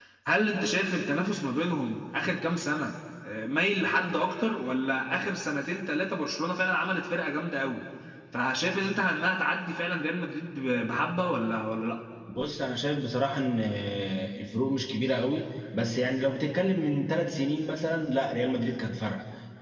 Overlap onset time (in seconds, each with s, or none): none